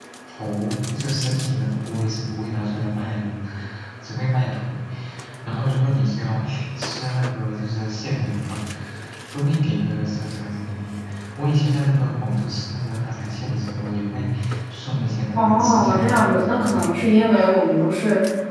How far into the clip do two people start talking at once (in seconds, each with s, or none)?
15.3 s